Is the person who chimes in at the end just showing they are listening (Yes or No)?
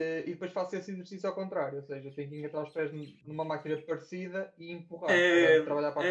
No